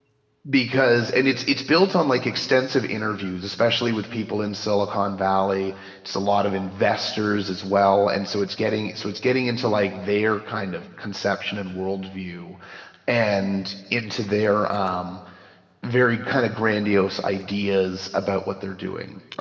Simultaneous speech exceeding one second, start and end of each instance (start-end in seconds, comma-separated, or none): none